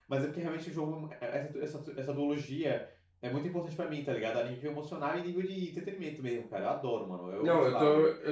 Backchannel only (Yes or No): No